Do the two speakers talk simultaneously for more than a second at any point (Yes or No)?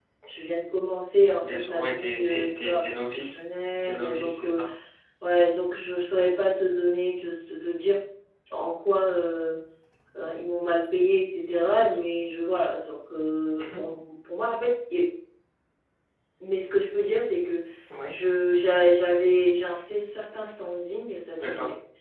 Yes